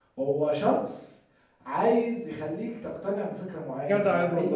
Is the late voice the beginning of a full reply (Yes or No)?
Yes